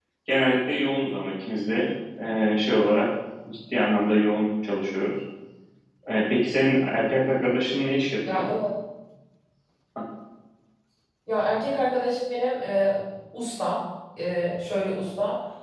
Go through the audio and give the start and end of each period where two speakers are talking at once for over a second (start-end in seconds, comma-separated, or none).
none